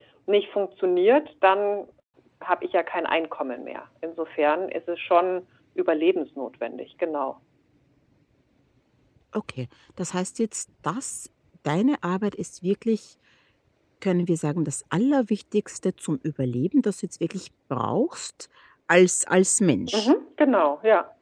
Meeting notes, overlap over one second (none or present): none